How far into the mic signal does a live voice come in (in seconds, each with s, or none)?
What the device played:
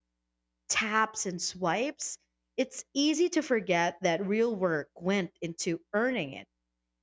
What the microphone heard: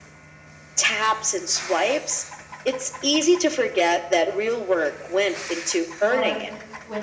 6.0 s